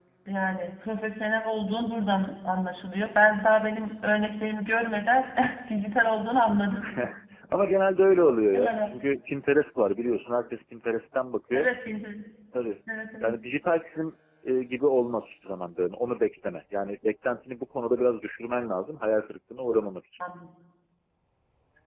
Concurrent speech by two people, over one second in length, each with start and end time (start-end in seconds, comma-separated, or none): none